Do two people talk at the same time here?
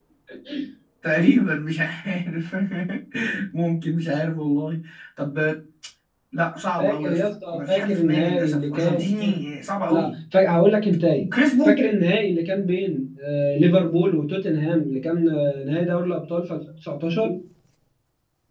Yes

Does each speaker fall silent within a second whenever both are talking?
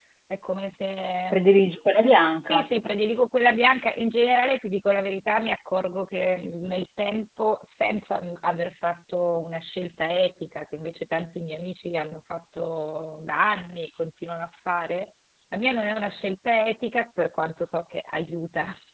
Yes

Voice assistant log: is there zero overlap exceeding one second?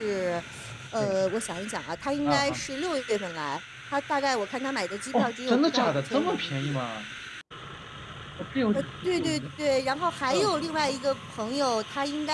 No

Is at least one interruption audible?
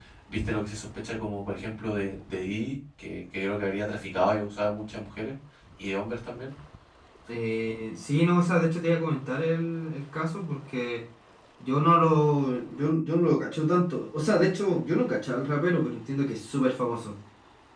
No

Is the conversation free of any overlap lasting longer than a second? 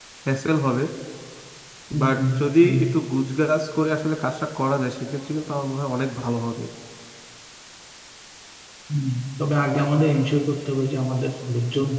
Yes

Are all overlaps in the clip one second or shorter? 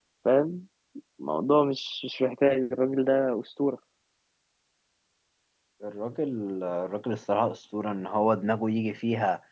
Yes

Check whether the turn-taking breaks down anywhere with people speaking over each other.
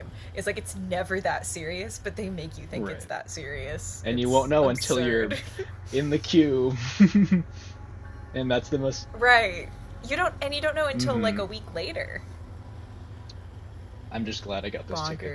Yes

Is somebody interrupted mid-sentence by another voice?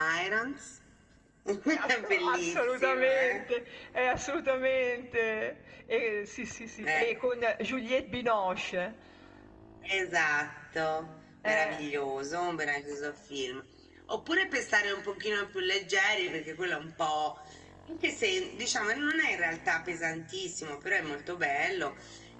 Yes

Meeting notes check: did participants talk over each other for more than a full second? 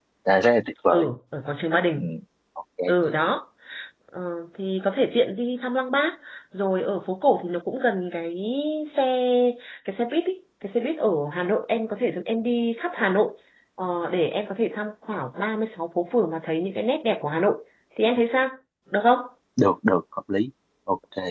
No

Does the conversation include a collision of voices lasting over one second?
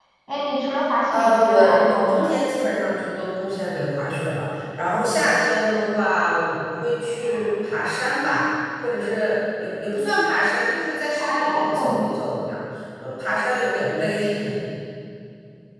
Yes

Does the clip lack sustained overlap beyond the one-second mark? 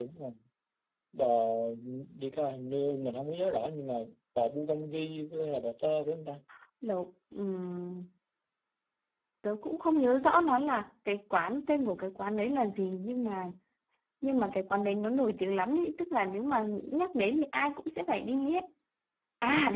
Yes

